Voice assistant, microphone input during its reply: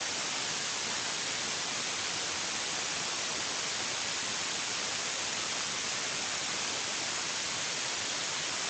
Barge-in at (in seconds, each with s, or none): none